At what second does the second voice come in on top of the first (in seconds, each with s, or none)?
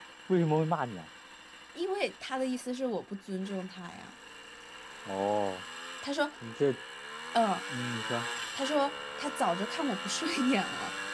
none